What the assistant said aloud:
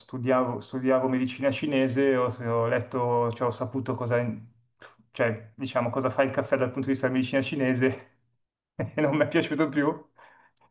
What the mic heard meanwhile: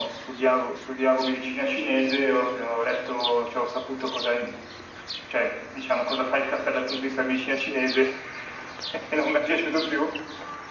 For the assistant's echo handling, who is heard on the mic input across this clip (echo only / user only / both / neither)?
echo only